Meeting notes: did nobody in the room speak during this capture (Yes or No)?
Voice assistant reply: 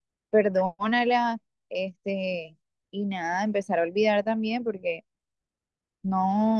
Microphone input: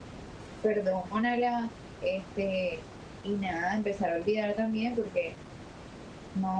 Yes